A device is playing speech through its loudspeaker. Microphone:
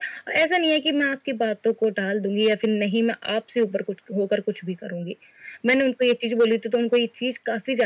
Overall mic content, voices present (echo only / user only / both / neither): echo only